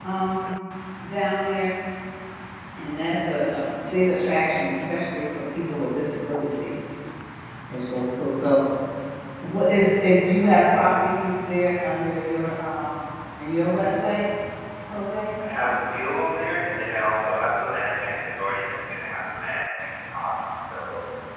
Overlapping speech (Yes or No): No